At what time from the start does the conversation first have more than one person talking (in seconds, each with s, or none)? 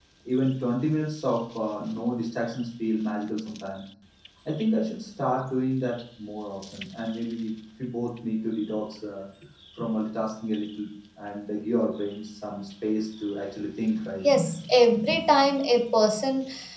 none